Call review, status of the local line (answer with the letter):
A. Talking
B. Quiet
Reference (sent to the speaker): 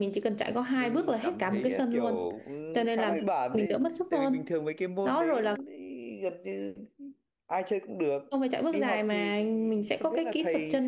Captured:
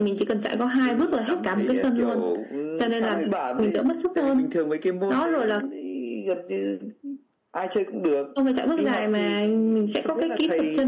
B